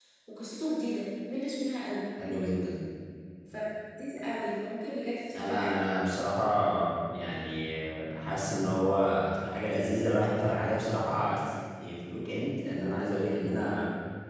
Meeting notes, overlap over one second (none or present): none